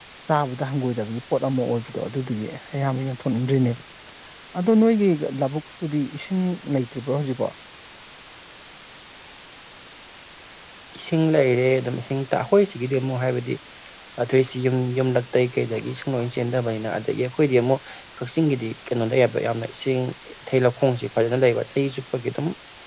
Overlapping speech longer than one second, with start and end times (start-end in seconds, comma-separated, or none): none